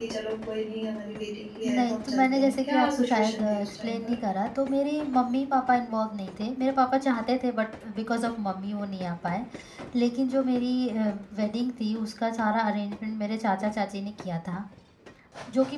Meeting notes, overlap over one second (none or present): present